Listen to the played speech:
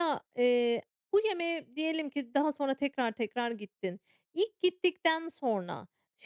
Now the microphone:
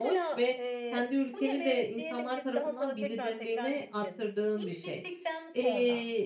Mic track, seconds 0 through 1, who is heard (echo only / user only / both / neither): both